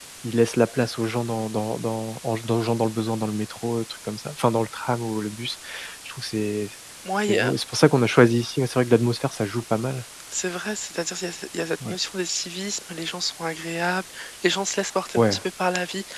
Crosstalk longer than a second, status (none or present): none